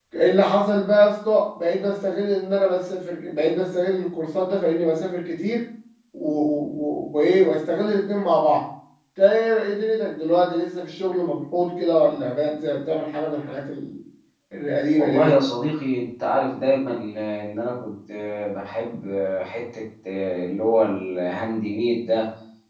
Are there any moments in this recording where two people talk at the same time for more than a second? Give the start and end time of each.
none

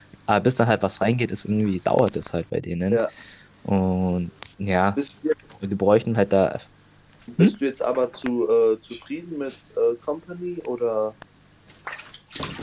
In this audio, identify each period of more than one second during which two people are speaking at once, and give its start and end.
none

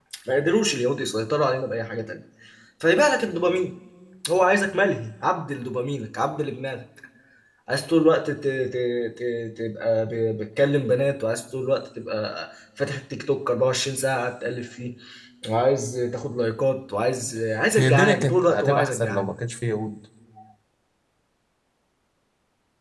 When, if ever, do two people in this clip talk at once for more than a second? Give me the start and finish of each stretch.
17.8-19.3

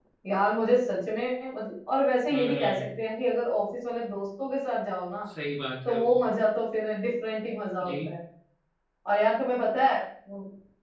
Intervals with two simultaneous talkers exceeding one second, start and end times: none

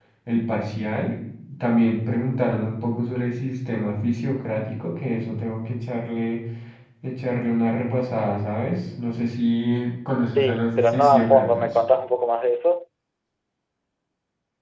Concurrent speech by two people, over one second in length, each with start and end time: 10.4-11.7

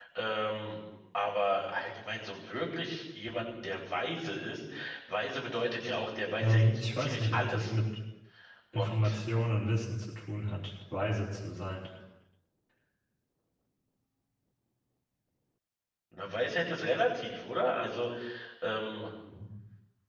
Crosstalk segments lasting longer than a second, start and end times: 6.4-7.7

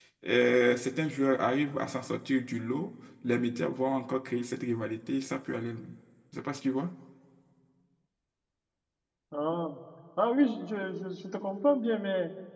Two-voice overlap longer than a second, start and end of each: none

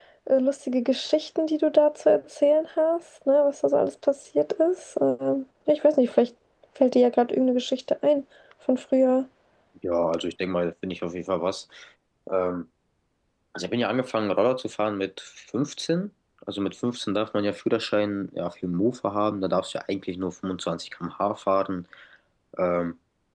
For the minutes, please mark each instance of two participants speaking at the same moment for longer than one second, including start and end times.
none

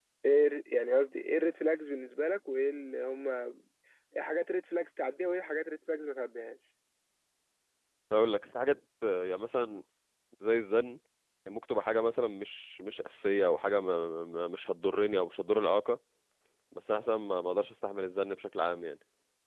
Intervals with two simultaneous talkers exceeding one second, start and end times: none

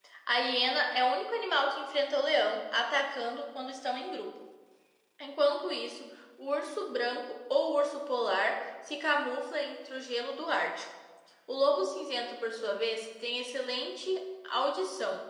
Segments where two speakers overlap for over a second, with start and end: none

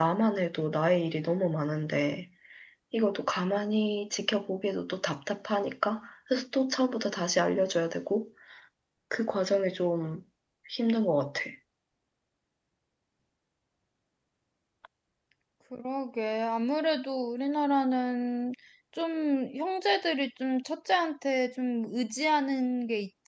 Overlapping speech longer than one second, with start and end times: none

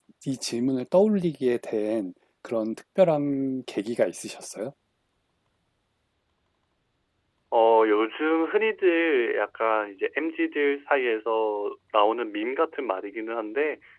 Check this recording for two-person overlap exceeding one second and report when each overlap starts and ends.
none

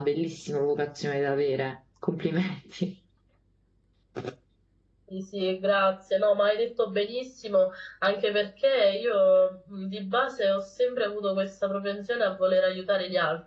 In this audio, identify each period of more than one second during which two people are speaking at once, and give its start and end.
none

